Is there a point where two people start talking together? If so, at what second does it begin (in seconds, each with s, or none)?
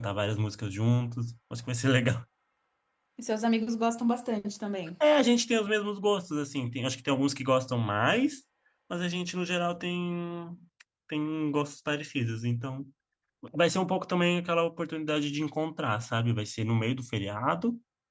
none